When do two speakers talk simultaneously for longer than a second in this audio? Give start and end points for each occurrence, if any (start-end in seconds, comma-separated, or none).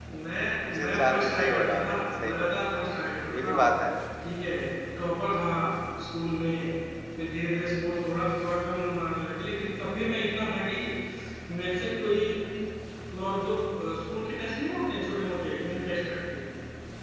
0.7-2.5